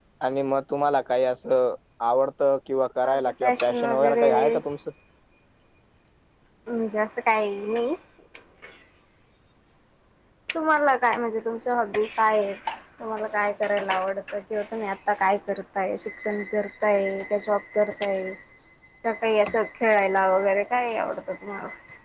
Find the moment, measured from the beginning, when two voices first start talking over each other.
3.0 s

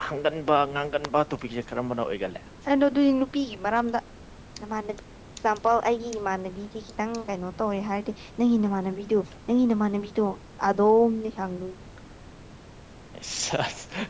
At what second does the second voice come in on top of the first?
none

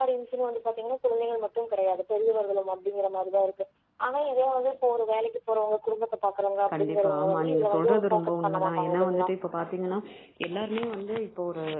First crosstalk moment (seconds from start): 6.7 s

